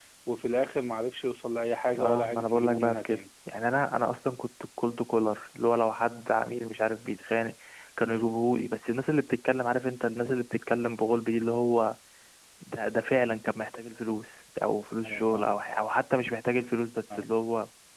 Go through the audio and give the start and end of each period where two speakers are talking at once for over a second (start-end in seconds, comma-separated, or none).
2.0-3.2